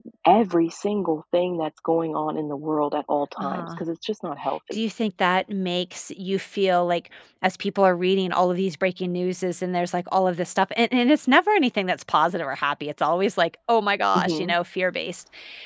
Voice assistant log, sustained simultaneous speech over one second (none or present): none